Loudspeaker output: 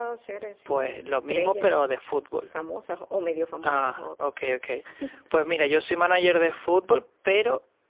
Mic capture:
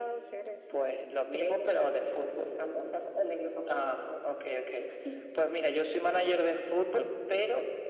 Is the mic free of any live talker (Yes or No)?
Yes